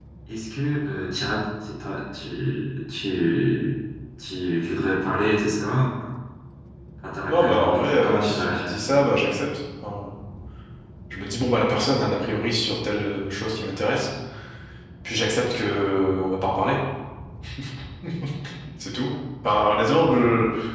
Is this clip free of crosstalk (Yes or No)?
No